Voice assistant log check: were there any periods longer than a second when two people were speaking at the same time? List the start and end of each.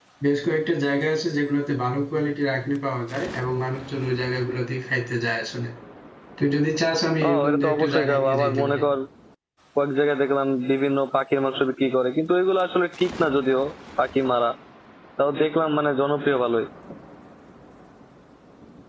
7.5-8.8

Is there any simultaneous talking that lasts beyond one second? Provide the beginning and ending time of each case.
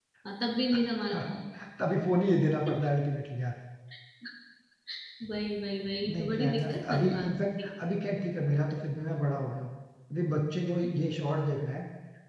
6.0-7.7

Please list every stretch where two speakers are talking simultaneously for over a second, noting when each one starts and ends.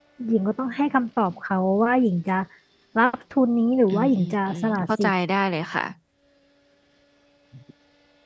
3.9-5.1

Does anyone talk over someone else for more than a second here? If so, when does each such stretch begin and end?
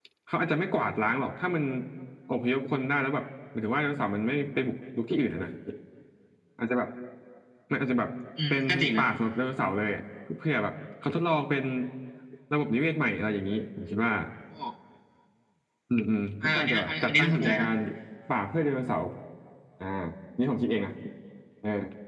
16.4-17.7

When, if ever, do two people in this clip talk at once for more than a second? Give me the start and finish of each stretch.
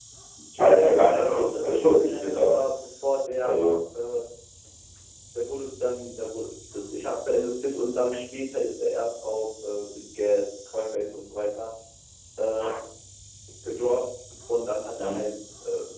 0.6-2.6

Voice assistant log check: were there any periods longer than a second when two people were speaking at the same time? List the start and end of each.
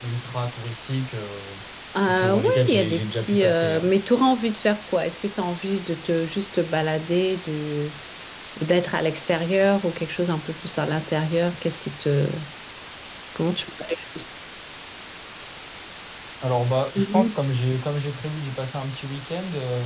2.1-3.8

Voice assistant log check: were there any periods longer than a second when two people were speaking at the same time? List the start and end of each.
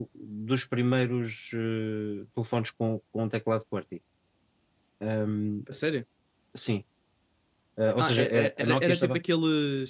8.0-9.2

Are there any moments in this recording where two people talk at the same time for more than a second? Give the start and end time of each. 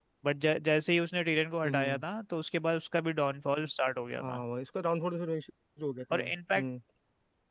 none

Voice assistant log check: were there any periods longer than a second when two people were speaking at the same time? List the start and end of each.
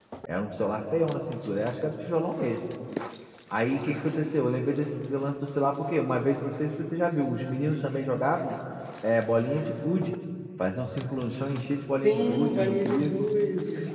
12.0-13.3

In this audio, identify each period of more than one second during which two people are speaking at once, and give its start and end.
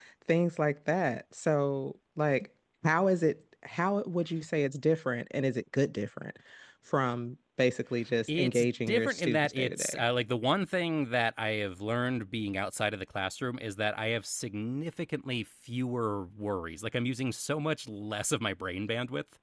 8.3-10.0

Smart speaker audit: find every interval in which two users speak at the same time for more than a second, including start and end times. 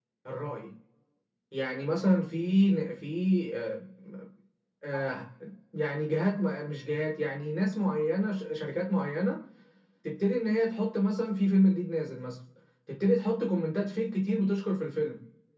none

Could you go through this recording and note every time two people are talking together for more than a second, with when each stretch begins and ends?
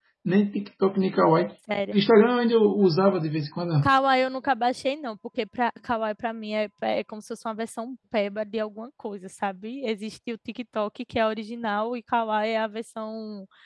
none

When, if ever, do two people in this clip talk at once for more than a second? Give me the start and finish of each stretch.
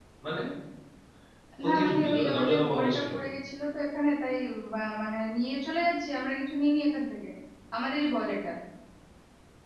1.7-3.1

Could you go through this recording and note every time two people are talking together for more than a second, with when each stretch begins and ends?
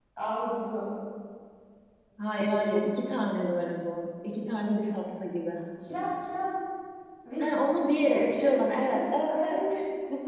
8.1-9.5

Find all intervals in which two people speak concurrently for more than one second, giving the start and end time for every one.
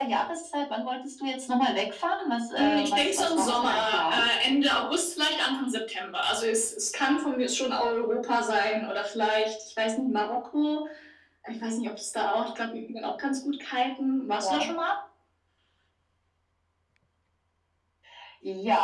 2.6-4.2

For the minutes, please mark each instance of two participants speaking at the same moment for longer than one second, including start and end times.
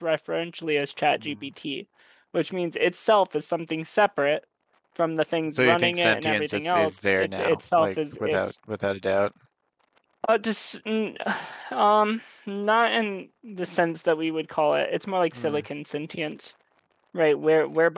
5.5-8.5

